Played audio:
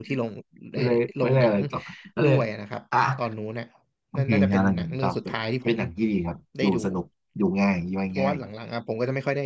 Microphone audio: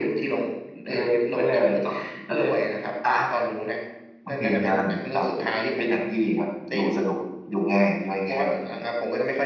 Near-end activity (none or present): none